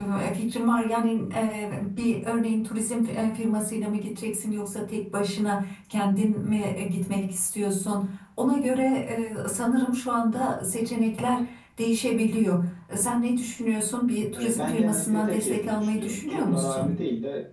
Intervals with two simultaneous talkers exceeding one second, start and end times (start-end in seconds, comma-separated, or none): 14.4-16.9